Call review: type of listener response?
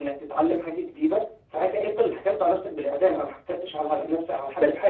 taking over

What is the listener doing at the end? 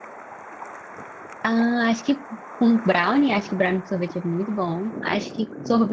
listening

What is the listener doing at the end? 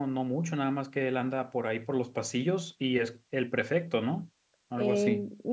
taking over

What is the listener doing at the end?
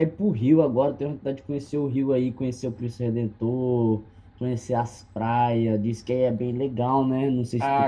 taking over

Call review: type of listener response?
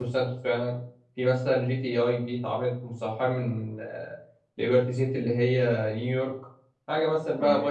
listening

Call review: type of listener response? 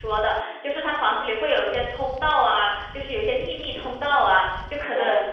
listening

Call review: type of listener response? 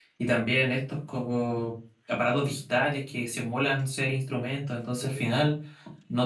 listening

